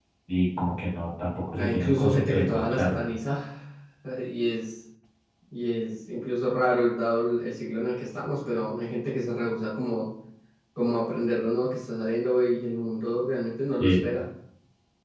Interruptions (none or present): present